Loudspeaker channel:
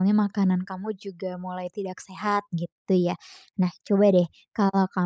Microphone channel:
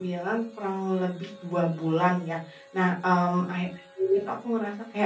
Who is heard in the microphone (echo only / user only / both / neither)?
user only